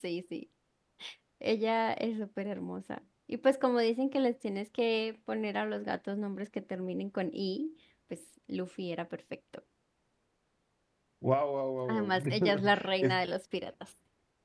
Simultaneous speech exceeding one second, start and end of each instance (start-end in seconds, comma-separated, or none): 11.9-13.2